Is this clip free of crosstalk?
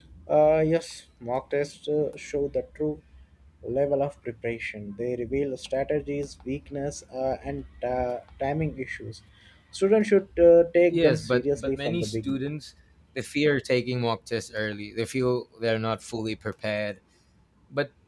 No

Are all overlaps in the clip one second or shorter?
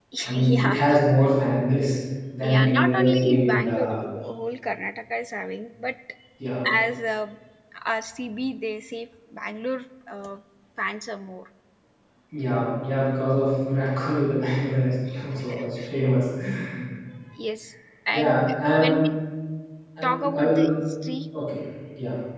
No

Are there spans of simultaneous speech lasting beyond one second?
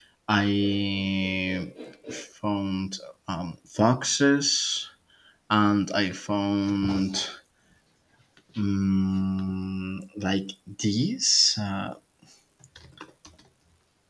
No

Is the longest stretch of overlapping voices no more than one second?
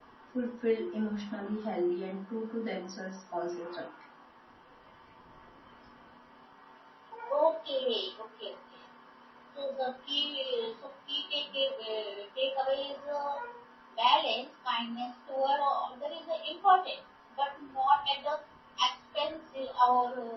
Yes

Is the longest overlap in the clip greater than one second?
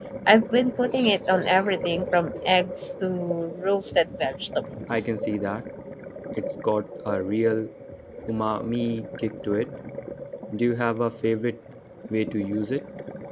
No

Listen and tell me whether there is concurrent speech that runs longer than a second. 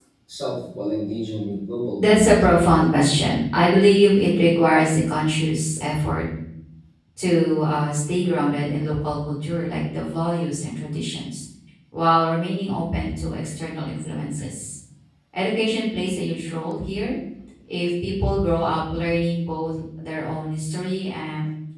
No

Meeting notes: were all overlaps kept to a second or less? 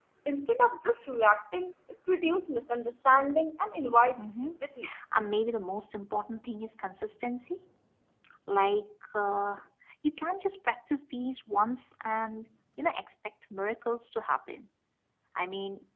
Yes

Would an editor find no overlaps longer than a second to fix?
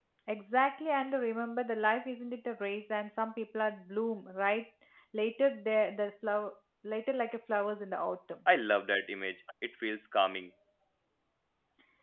Yes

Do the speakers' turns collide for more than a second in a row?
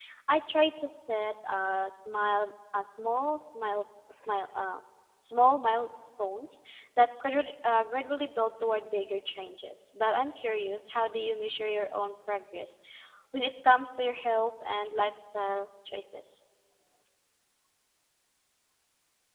No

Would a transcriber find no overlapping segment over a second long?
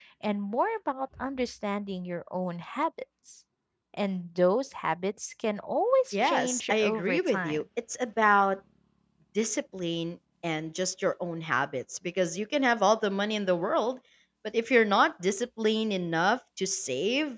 No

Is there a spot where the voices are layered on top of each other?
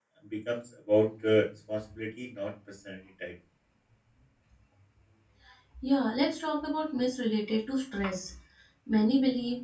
No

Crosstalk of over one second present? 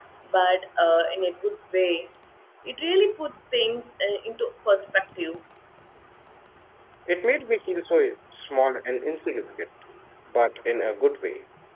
No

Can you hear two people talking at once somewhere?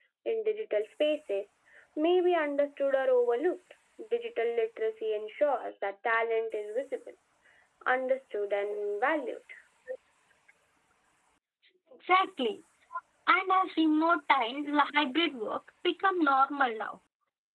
No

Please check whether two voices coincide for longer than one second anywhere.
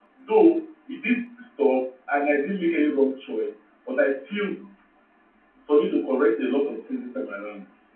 No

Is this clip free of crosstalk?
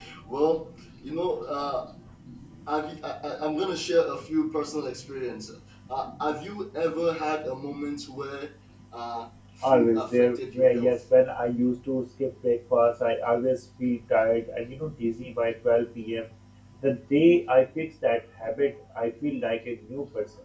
No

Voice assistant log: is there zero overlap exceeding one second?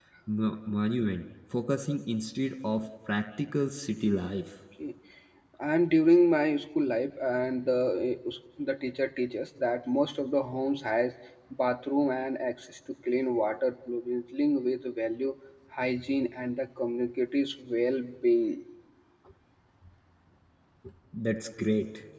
Yes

